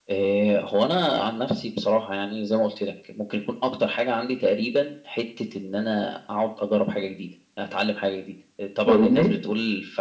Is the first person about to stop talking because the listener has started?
No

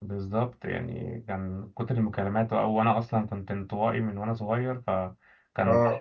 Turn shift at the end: No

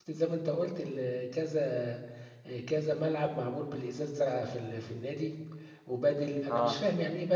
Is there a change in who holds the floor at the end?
No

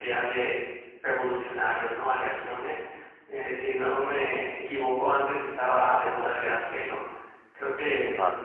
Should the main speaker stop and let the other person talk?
No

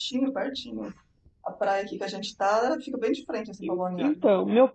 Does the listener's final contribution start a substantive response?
Yes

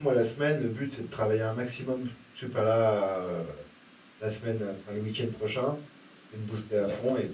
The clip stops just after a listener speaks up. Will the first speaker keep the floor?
Yes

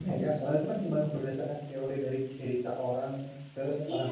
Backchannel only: No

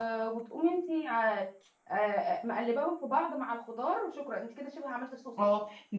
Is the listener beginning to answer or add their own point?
Yes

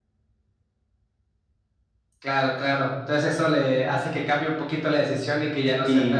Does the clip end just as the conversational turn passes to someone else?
Yes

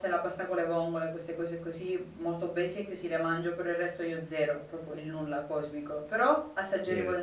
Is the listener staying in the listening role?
Yes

